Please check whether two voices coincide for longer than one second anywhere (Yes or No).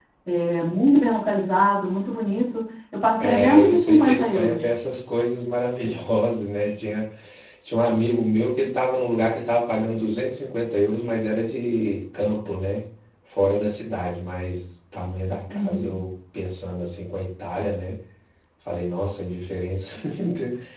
Yes